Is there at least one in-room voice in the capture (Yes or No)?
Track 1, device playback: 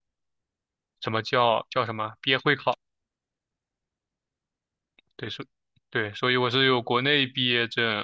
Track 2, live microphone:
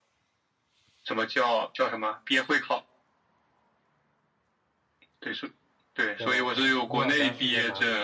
Yes